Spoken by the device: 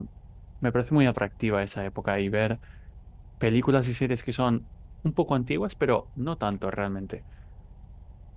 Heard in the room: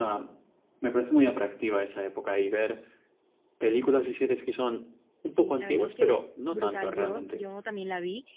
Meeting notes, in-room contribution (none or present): present